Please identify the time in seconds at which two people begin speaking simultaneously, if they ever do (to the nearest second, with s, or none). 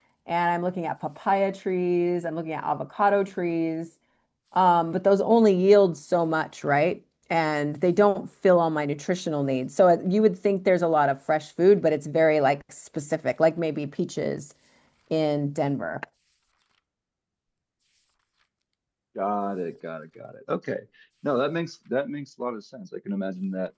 none